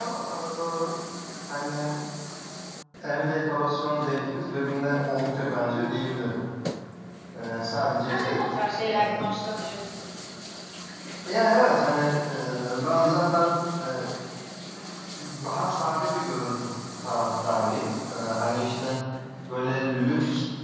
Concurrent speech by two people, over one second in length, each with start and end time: none

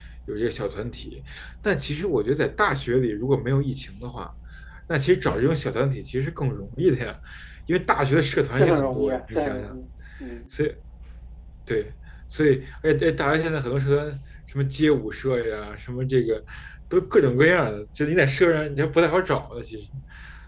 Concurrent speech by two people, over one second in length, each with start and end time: 8.6-9.8

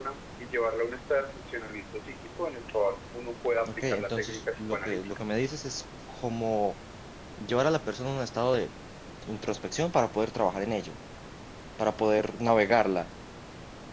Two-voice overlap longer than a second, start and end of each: 3.6-5.1

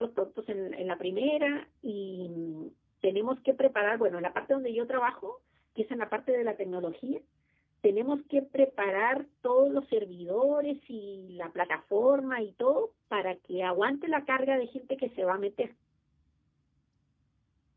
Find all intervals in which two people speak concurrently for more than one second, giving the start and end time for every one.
none

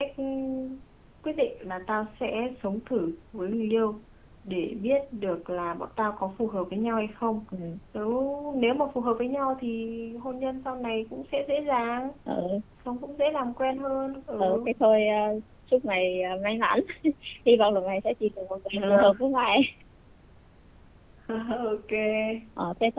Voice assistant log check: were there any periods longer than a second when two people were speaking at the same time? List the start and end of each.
none

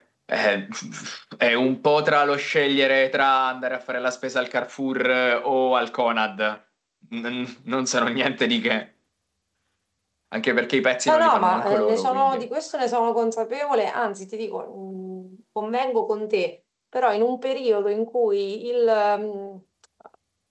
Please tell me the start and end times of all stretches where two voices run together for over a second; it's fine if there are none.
11.1-12.4

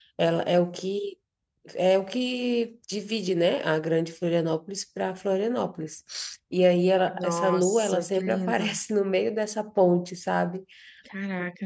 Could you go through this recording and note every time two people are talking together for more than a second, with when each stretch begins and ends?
7.1-8.7

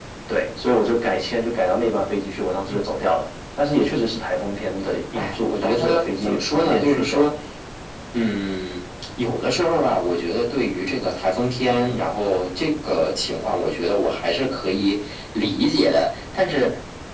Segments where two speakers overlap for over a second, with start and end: 5.2-7.3

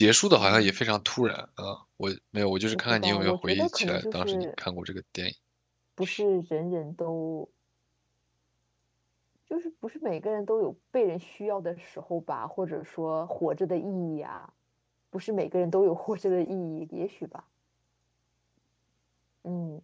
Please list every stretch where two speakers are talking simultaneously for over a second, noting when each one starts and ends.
2.9-4.4

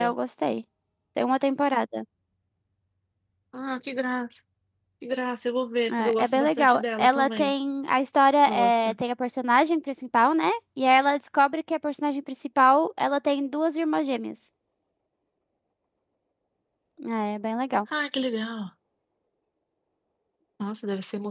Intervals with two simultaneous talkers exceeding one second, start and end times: 6.2-7.5

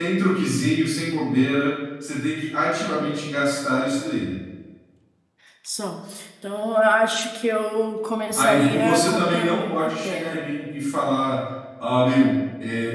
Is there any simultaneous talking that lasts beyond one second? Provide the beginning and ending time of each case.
8.3-10.4

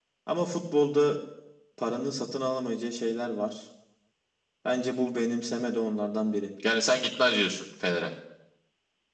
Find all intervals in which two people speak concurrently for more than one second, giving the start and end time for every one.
none

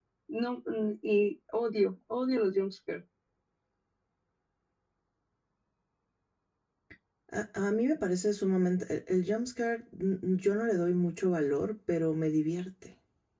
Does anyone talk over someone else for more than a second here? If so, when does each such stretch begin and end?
none

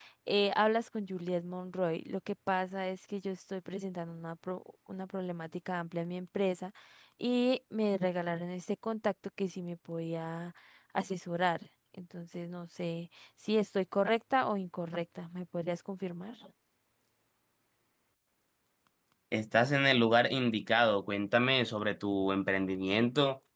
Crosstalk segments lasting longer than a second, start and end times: none

